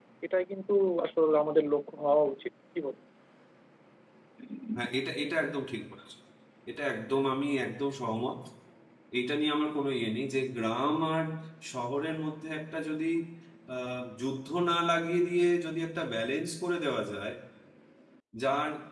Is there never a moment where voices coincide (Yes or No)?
Yes